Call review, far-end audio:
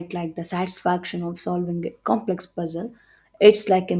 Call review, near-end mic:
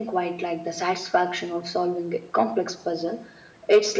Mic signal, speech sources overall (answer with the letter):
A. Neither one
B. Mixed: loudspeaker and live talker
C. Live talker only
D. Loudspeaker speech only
D